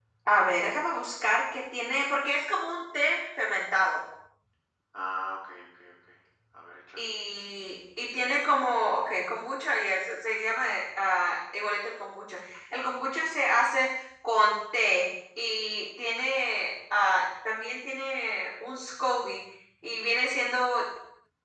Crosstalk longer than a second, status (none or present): none